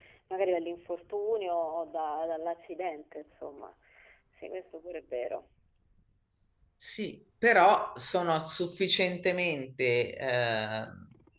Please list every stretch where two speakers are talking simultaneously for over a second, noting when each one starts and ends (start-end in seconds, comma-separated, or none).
none